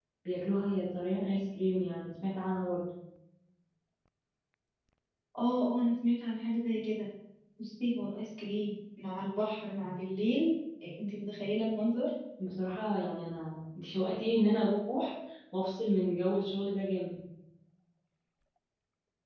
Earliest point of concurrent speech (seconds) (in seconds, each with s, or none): none